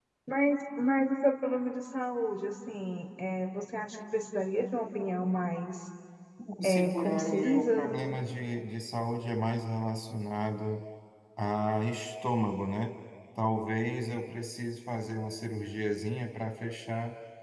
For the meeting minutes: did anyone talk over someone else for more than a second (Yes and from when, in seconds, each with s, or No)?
Yes, from 6.6 s